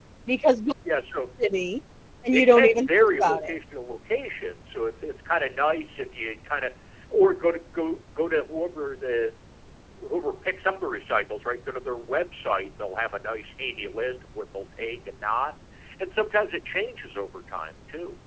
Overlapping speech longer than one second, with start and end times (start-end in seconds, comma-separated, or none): 2.3-3.5